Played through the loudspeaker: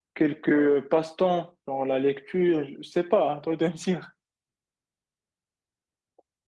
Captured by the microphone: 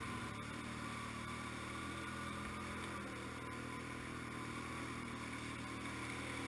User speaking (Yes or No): No